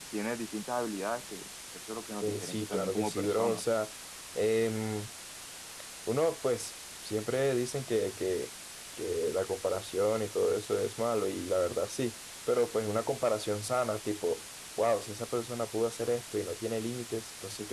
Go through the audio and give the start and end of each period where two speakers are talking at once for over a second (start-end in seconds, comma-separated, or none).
2.2-3.6